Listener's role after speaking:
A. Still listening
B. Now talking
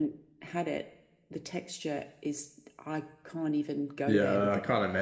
B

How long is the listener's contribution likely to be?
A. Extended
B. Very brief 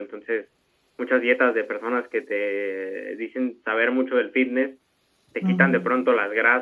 B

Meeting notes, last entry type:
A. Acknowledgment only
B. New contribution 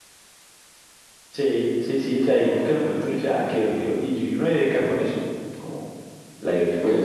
A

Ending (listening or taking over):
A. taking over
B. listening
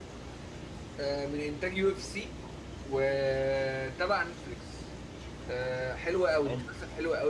B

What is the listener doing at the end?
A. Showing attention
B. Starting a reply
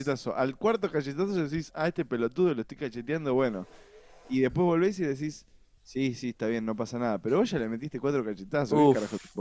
B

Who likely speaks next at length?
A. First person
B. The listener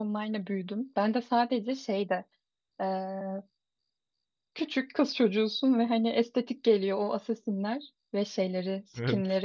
A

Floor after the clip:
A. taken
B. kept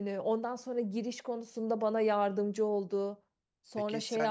A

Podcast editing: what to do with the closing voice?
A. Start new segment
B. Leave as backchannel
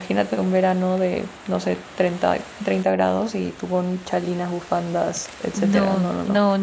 A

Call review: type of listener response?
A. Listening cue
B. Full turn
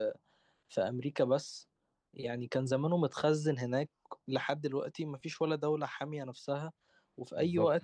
A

